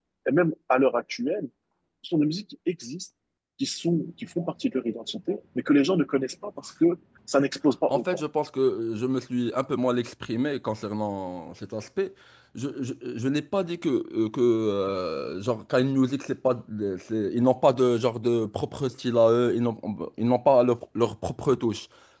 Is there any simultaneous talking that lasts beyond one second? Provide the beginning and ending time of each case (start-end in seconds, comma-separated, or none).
none